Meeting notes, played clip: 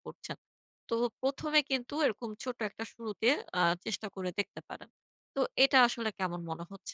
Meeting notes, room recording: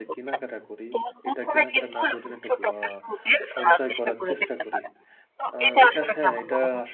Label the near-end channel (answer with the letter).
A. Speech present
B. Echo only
A